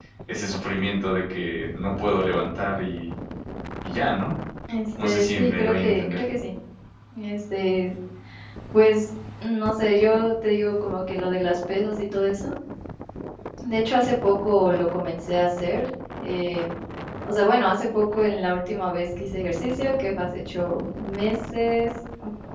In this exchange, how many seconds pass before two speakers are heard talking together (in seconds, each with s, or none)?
5.0 s